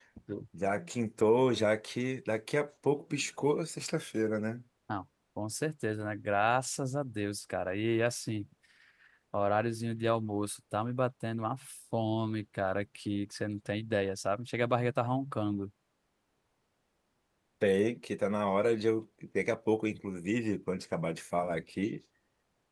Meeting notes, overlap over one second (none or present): none